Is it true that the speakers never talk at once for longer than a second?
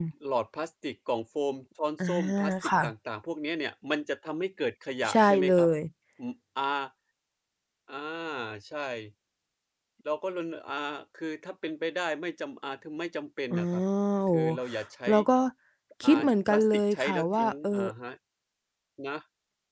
No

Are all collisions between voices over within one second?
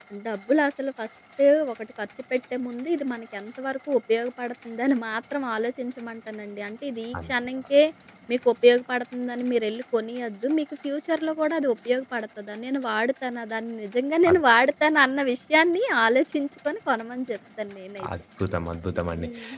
Yes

